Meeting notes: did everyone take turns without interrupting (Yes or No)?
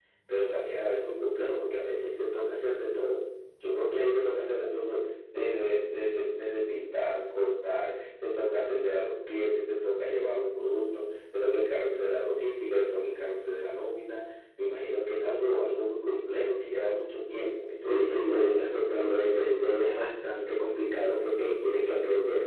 No